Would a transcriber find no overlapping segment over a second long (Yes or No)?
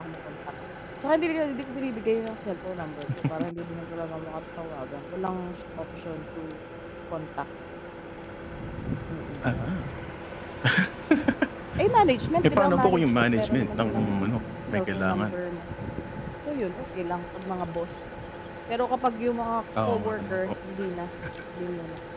No